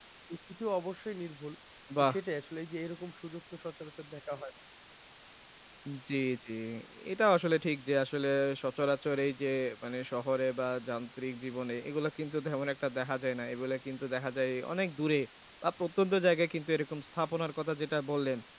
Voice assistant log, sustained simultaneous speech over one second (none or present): none